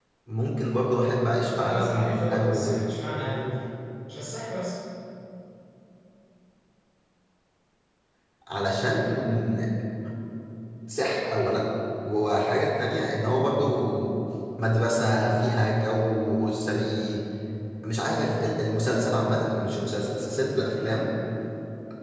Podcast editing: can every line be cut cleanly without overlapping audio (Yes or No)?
No